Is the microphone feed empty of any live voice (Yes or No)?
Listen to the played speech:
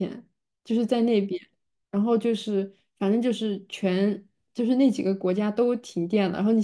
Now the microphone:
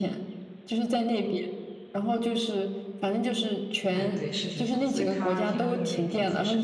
No